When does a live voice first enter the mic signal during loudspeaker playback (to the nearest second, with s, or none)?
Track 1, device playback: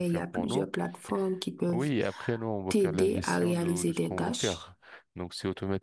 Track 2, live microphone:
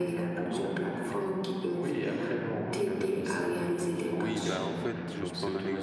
4 s